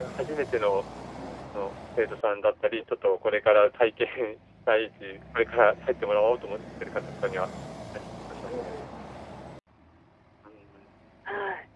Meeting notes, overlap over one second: none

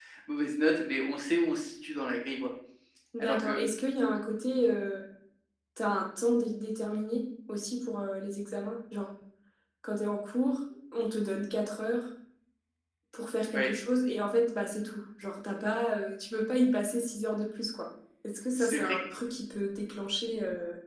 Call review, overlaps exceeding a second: none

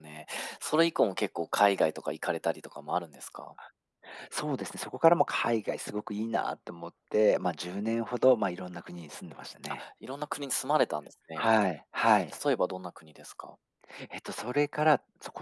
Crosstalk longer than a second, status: none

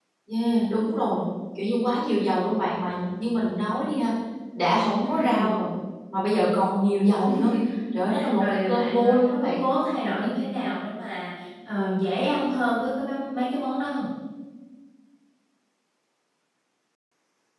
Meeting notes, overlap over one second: present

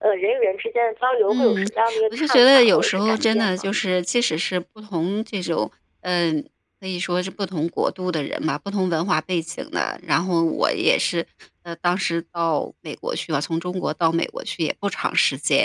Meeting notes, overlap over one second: present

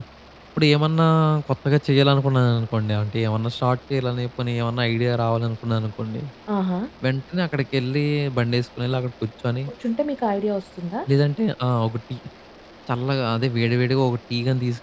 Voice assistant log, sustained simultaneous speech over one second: none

